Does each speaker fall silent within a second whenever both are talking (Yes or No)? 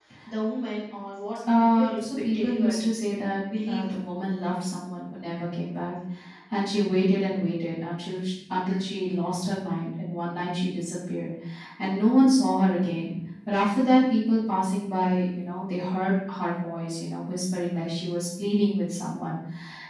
No